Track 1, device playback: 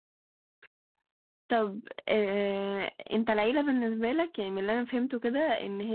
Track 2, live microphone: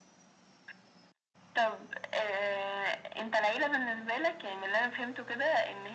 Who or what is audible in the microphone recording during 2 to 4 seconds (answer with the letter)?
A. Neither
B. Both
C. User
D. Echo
D